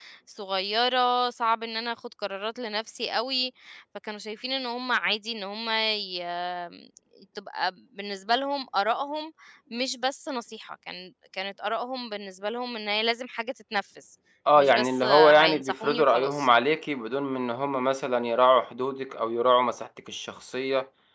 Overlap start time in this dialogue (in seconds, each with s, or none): 14.6 s